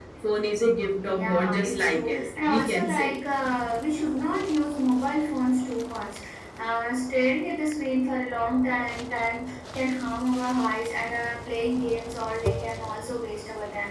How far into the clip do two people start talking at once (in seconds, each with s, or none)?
1.0 s